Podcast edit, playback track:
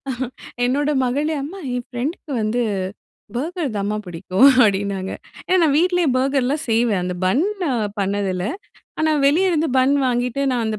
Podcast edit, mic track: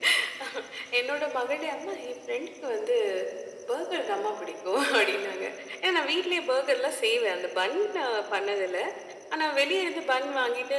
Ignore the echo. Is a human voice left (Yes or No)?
No